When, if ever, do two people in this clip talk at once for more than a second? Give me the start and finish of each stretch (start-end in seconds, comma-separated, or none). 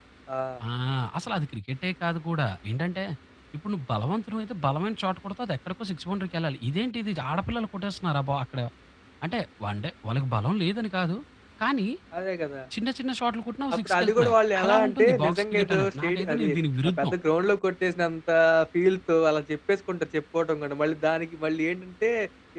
13.7-16.5